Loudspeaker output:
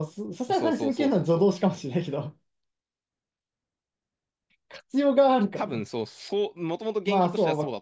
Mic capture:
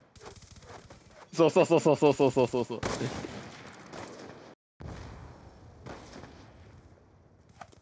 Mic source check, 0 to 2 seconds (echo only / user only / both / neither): user only